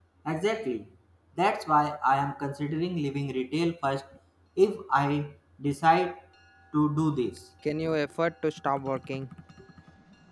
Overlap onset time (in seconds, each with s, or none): none